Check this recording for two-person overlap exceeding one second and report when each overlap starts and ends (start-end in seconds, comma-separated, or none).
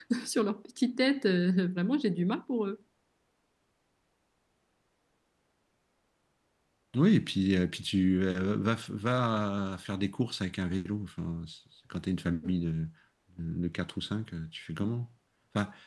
none